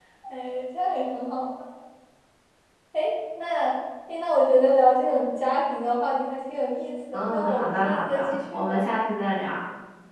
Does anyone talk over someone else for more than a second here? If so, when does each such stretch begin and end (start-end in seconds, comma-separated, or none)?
7.1-8.8